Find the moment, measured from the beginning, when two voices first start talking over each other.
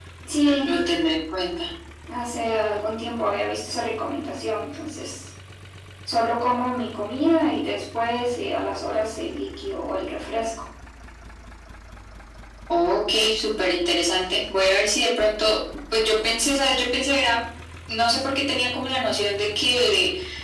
none

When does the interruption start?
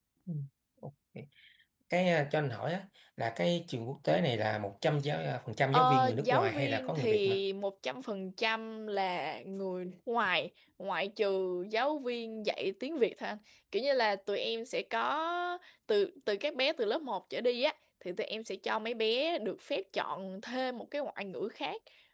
5.7 s

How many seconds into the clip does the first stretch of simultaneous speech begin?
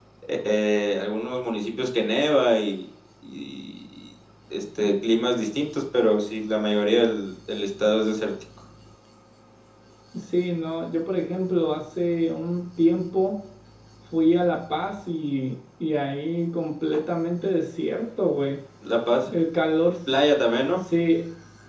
none

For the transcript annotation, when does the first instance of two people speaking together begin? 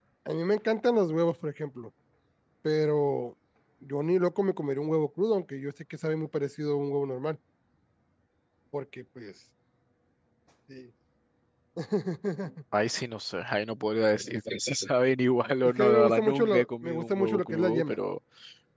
15.6 s

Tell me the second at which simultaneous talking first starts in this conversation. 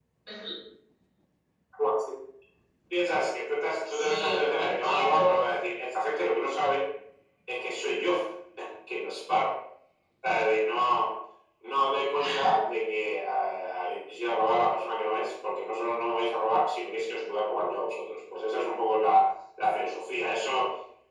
3.9 s

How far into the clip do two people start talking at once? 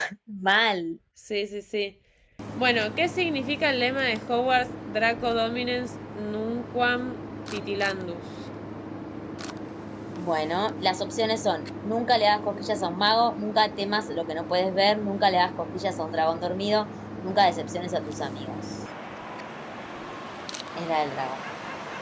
none

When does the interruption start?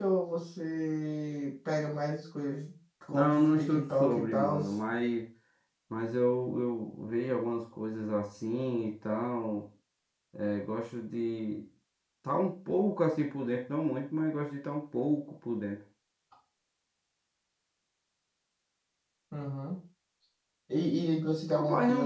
3.1 s

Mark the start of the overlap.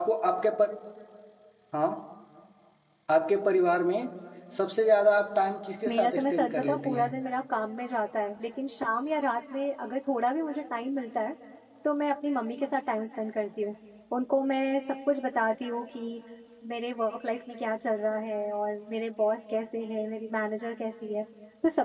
5.8 s

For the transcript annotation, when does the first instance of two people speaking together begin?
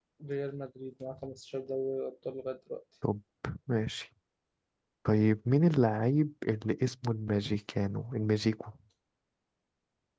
none

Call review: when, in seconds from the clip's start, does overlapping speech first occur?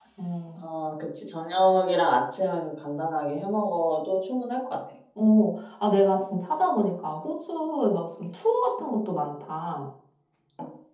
none

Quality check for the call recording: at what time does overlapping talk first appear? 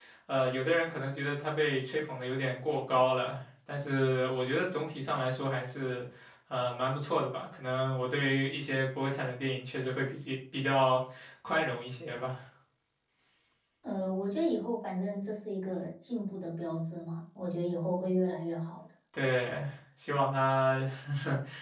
none

